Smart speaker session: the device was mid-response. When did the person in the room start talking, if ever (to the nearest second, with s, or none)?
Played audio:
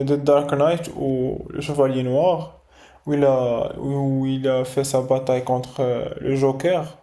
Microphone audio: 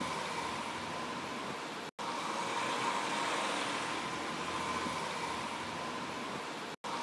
none